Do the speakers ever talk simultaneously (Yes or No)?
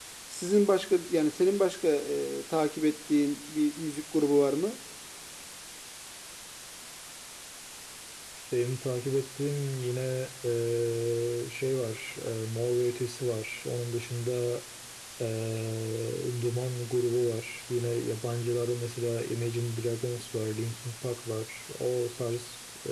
No